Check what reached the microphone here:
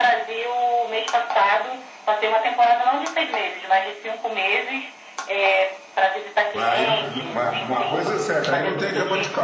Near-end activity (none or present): present